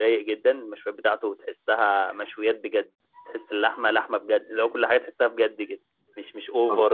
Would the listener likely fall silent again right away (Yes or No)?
Yes